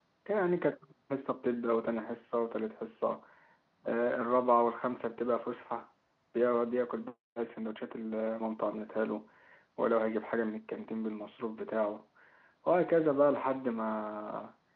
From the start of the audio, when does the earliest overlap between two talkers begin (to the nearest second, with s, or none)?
none